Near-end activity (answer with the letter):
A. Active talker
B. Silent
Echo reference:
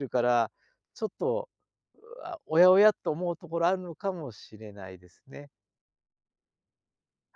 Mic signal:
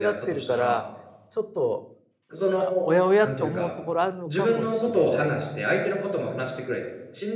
A